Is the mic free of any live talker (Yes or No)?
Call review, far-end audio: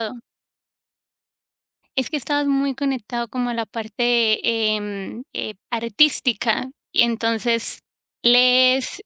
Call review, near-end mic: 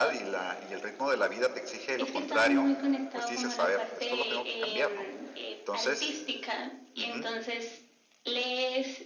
No